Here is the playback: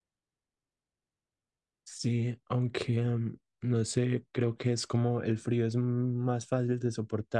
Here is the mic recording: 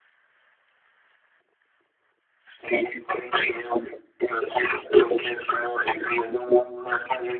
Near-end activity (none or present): none